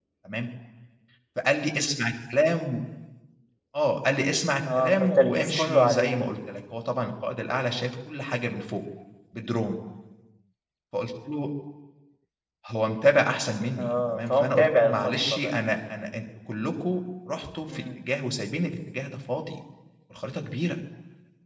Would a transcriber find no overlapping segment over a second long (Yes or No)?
No